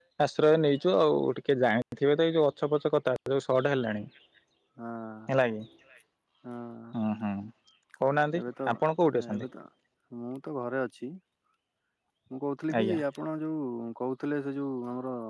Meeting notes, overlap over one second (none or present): none